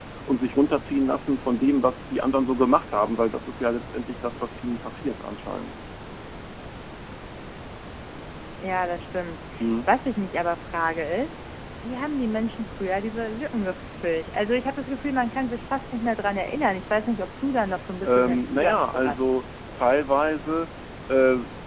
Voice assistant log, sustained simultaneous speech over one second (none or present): present